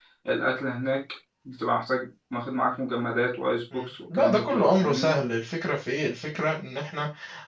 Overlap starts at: 3.7 s

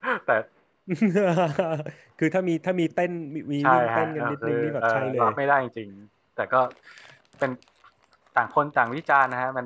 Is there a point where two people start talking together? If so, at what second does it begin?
3.6 s

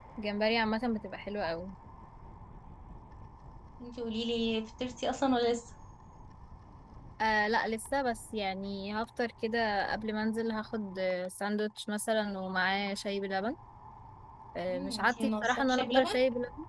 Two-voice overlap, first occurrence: 14.7 s

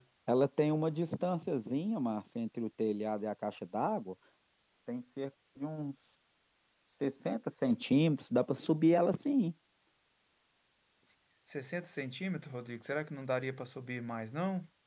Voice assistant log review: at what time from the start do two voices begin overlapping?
none

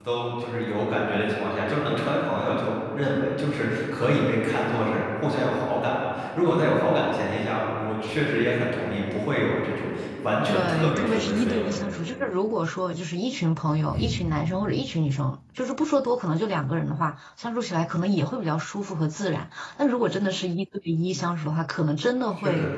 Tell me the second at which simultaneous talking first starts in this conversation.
10.4 s

